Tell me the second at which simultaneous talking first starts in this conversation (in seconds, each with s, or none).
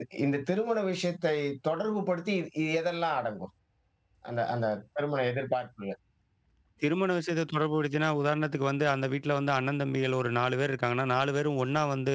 none